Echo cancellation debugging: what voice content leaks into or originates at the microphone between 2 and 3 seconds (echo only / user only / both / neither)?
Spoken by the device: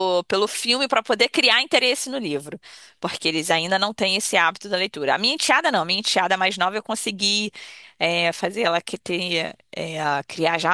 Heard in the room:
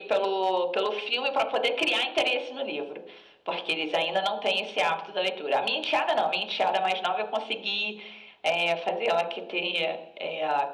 echo only